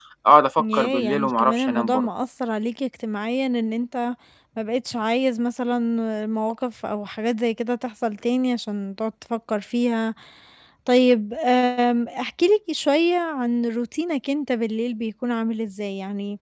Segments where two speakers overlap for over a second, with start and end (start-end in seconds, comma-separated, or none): 0.6-2.1